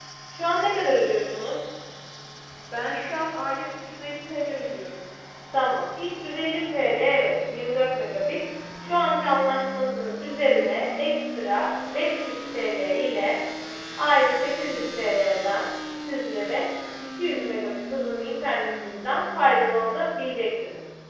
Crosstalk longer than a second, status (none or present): none